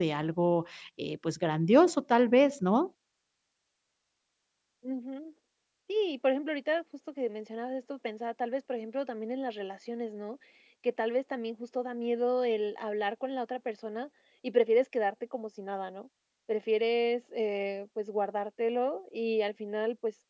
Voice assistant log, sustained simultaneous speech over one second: none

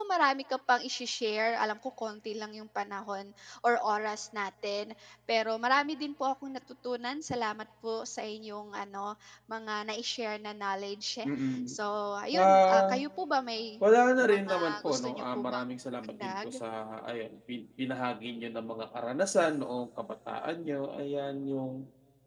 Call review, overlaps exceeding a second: present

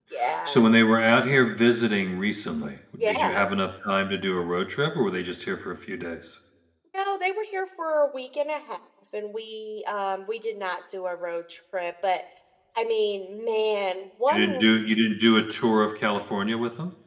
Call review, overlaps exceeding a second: none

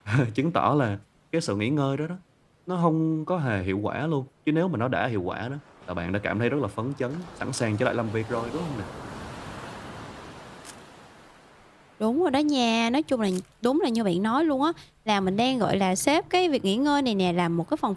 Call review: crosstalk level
none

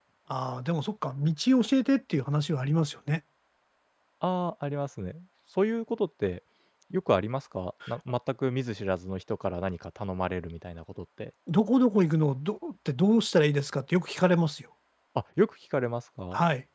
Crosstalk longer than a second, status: none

